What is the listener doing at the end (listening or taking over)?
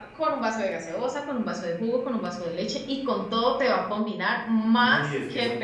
taking over